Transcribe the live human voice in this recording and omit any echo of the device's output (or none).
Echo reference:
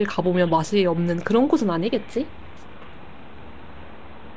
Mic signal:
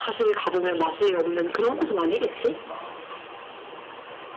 응, 응, 그니까.